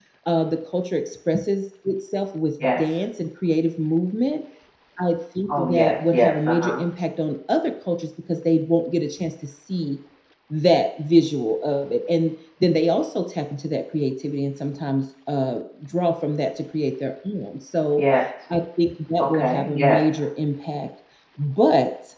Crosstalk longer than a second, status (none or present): present